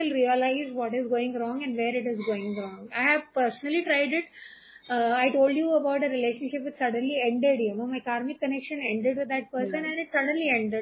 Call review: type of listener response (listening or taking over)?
listening